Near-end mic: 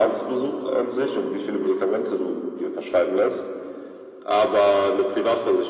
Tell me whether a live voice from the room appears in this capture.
No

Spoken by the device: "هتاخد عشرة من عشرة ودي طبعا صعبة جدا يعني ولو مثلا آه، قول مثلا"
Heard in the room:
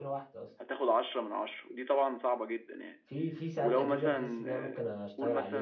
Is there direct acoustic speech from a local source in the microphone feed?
Yes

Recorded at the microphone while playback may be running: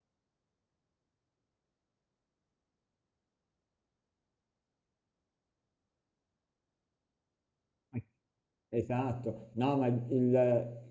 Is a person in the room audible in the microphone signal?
Yes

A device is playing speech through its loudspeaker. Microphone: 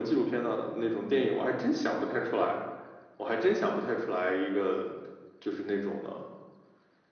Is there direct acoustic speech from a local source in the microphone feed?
No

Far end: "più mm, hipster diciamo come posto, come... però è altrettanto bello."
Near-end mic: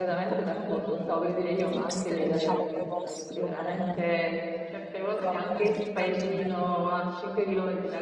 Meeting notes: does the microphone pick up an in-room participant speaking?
Yes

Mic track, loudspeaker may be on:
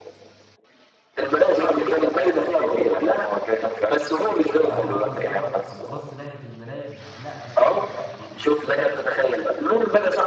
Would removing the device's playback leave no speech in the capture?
No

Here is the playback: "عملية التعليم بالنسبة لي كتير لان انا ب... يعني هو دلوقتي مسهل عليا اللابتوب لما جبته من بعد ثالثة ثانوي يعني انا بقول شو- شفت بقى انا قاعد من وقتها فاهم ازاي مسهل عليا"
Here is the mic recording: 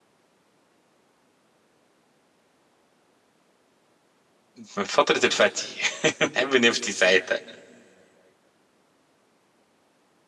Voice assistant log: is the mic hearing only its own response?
No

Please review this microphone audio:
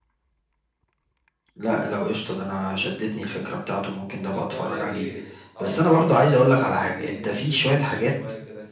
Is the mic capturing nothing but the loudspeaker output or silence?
No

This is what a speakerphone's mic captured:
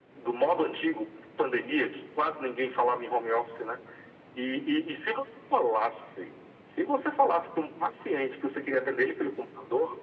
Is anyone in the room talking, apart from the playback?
No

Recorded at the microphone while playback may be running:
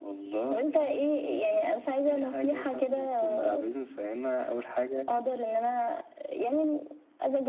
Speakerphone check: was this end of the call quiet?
Yes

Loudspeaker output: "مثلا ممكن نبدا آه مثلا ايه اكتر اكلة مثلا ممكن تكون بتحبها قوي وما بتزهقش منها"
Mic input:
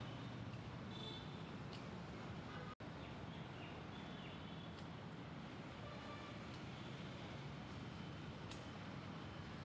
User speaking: No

